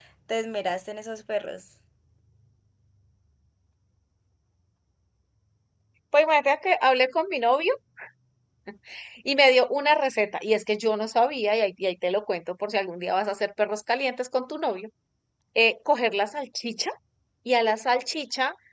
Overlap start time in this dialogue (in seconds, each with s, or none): none